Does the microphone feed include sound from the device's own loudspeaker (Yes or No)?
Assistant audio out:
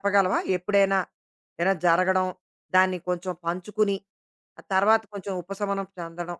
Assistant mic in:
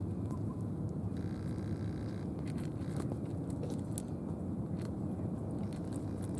No